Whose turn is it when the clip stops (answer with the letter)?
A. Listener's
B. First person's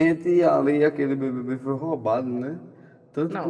A